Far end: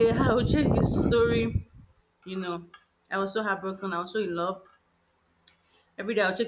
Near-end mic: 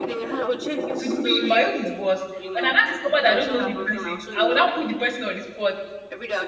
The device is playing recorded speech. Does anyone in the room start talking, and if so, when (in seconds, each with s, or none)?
1.0 s